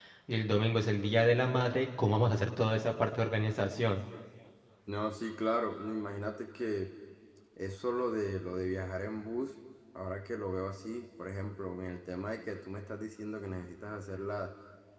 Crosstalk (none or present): none